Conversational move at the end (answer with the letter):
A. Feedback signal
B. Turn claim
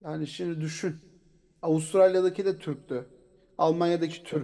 A